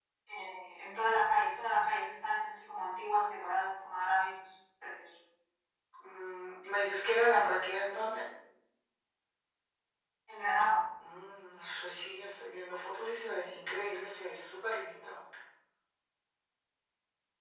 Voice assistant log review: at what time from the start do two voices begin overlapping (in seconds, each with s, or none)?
none